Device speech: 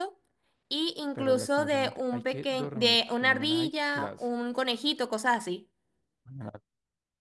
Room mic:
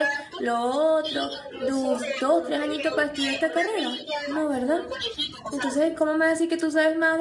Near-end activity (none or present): present